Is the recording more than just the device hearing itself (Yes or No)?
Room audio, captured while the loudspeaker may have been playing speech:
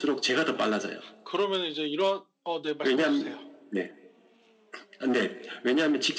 Yes